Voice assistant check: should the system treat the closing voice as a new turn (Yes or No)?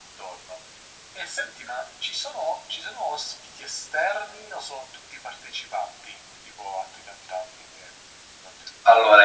Yes